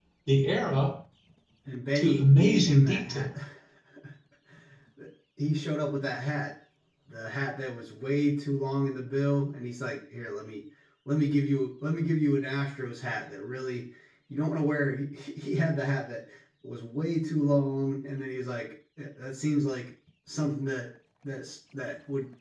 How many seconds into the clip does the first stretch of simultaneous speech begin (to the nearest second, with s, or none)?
2 s